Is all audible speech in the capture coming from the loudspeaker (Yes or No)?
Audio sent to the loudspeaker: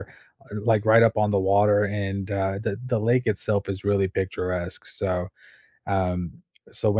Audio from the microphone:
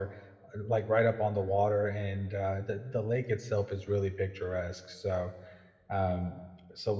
Yes